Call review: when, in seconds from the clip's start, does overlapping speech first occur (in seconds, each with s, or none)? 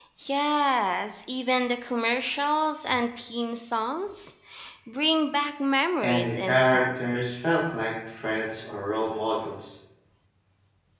6.0 s